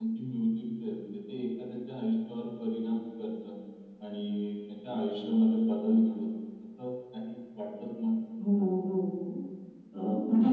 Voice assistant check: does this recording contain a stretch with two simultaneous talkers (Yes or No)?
No